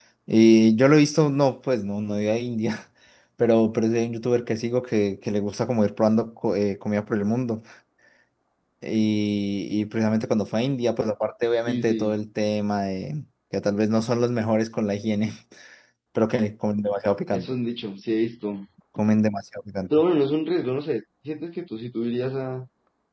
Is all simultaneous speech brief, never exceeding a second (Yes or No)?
Yes